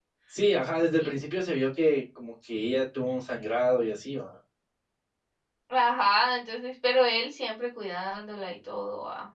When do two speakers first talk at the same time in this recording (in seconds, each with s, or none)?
none